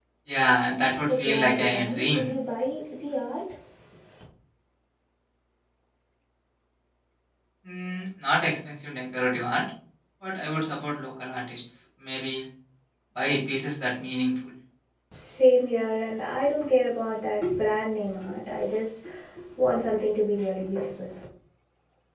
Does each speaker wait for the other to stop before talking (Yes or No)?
No